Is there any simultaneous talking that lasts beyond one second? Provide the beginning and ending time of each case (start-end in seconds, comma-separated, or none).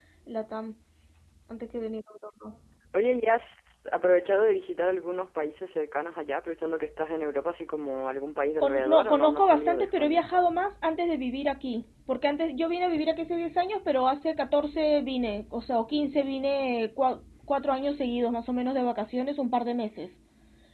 8.6-10.2